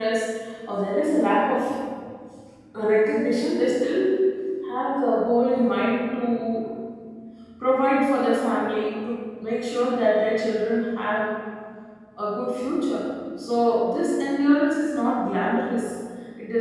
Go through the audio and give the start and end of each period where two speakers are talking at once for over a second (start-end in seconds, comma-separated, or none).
none